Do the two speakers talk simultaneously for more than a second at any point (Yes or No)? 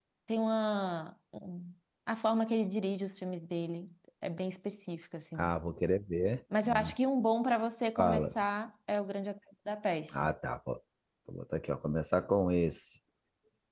No